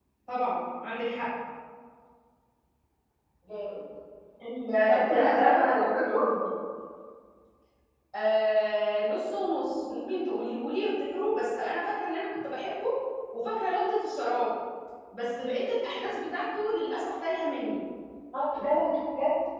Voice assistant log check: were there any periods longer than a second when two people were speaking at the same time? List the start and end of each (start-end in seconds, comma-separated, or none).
4.9-6.1